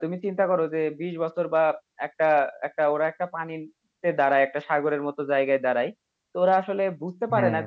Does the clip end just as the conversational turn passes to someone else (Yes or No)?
No